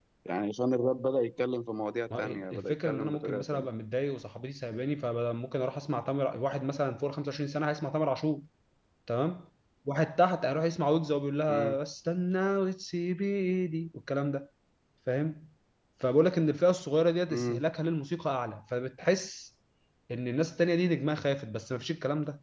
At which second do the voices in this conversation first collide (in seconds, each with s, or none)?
2.2 s